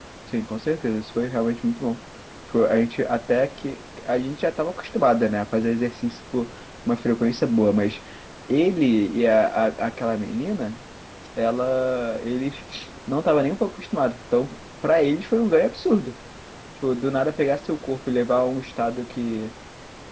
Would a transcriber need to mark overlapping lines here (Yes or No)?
No